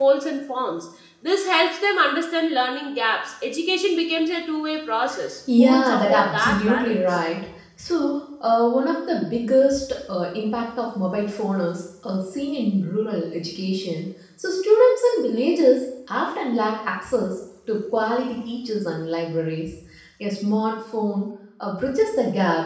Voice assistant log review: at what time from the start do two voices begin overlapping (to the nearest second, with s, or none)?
5 s